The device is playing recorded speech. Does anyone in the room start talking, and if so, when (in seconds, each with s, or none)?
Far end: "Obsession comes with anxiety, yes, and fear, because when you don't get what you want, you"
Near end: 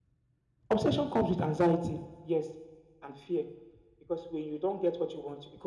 none